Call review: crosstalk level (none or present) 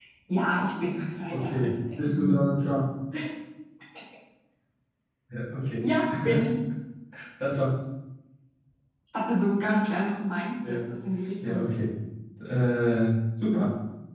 present